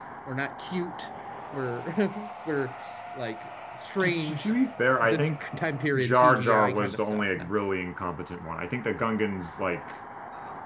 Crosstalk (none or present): present